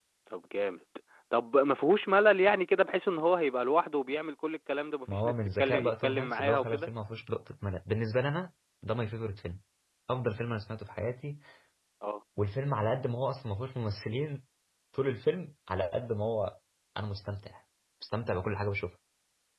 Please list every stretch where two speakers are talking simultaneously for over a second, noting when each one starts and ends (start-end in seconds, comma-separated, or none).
5.1-6.9